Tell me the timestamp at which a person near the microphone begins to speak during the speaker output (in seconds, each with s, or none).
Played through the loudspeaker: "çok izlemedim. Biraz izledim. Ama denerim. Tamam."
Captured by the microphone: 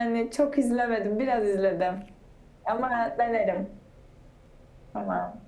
none